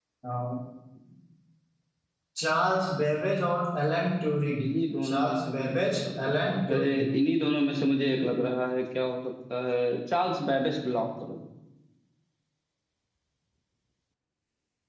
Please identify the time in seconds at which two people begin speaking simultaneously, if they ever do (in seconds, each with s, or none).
5.1 s